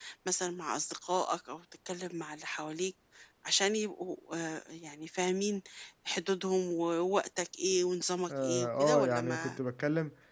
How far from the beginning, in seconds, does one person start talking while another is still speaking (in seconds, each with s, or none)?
8.3 s